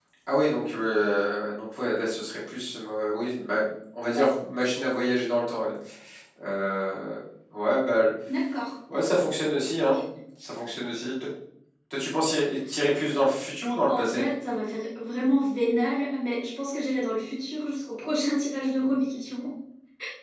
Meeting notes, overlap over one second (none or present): none